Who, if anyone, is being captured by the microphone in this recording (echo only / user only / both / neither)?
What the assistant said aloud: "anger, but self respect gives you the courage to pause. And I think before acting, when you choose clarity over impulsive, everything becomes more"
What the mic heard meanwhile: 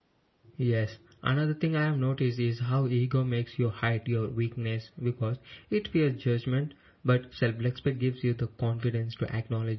user only